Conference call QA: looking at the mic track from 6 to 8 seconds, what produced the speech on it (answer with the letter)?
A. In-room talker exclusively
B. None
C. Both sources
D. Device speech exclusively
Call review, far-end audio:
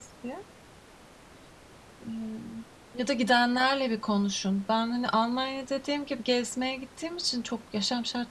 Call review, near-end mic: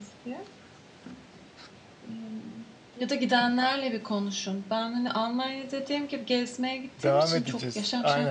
C